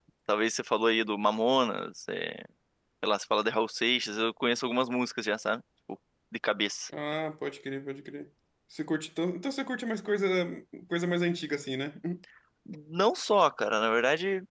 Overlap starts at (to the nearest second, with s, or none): none